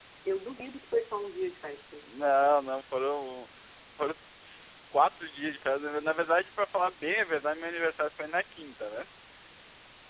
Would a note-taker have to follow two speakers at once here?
No

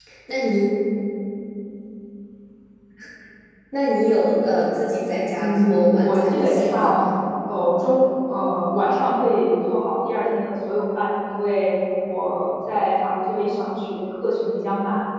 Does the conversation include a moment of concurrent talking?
Yes, from 5.4 s

